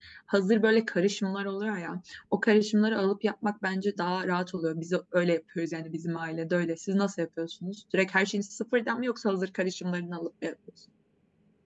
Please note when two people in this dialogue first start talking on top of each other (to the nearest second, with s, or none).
none